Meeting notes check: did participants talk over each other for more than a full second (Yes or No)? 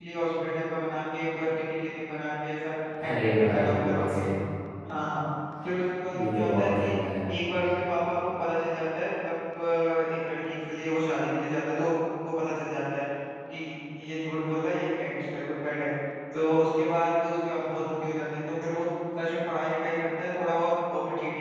Yes